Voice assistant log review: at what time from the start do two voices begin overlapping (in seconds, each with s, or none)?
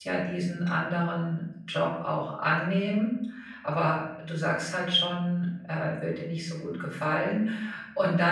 none